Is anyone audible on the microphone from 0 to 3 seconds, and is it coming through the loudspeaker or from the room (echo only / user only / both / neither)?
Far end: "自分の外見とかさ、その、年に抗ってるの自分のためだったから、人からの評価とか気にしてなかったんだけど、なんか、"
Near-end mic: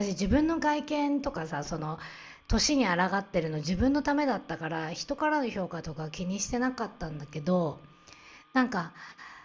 echo only